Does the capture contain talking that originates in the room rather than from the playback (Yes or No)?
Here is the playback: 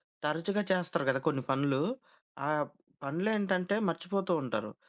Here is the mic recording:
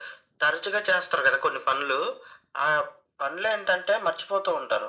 No